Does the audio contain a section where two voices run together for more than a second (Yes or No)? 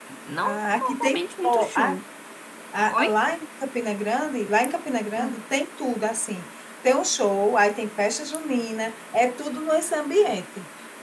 Yes